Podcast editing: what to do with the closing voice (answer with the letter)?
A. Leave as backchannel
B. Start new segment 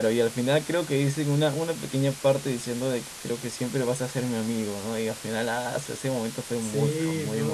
B